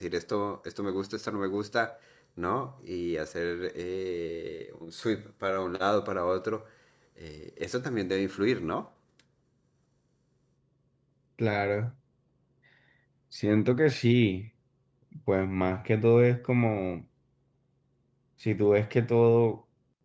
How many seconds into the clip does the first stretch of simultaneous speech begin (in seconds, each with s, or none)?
none